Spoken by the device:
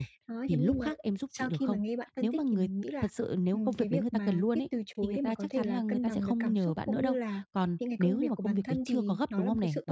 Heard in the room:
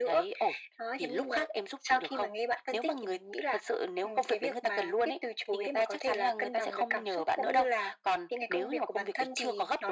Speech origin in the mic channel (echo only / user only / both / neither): echo only